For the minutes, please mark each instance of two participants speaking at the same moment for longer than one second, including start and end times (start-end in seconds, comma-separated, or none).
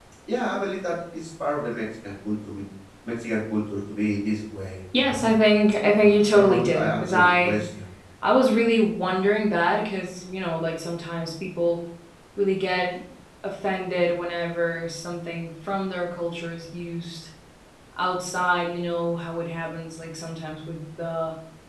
6.0-7.6